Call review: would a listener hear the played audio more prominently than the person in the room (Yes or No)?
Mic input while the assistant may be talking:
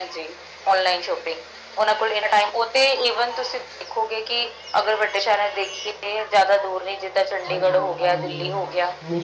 Yes